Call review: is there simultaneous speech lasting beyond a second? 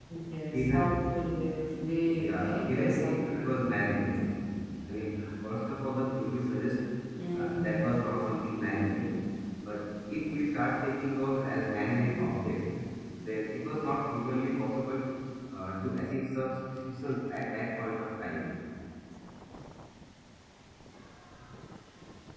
Yes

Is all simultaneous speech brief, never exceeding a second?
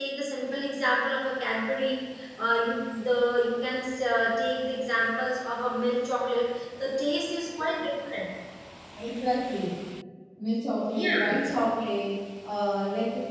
Yes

